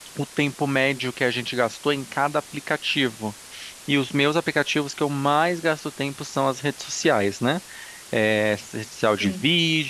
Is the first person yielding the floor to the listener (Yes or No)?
No